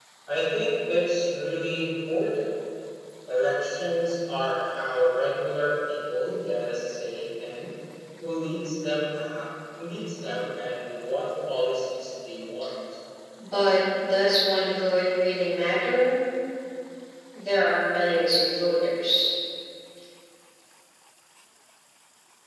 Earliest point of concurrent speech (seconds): none

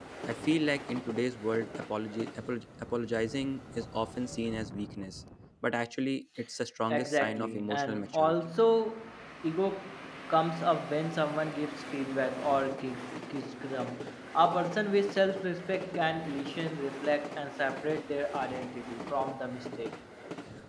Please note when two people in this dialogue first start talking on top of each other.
6.9 s

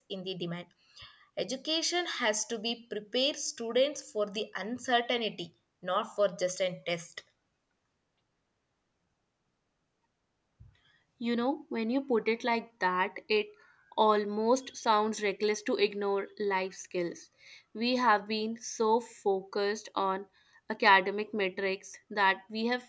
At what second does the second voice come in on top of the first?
none

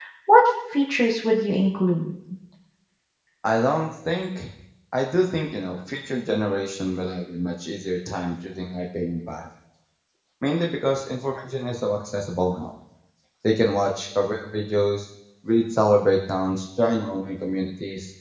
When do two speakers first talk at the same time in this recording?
none

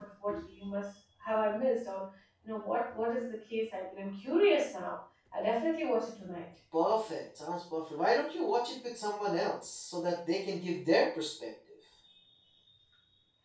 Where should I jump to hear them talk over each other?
none

